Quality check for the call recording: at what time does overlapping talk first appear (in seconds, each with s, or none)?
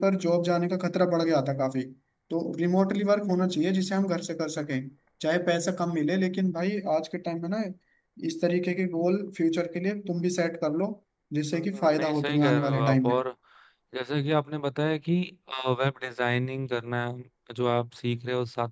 11.5 s